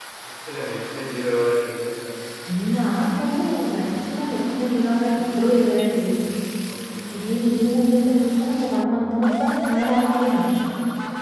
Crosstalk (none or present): none